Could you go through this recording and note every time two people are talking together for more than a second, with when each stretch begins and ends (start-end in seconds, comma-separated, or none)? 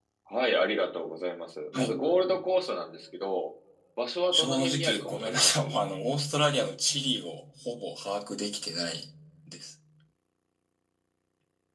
4.3-5.7